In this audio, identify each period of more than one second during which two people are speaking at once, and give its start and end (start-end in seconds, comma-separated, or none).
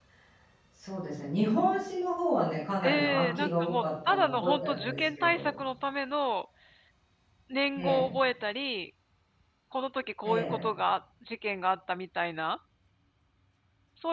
2.8-5.5